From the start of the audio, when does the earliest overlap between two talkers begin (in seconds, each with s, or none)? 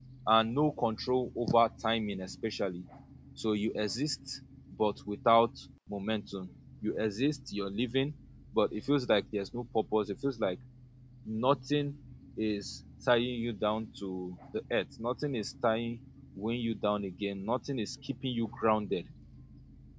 none